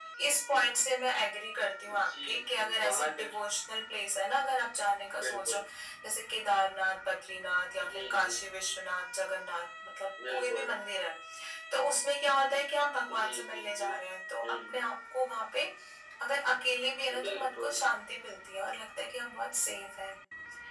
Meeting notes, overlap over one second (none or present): present